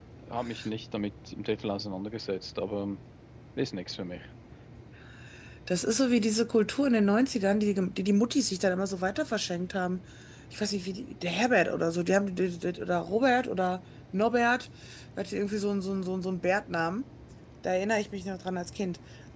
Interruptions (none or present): none